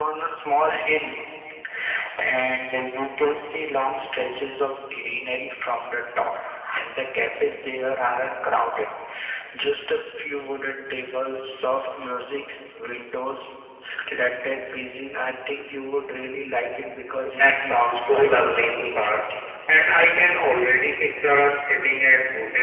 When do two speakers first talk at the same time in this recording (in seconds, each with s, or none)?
17.2 s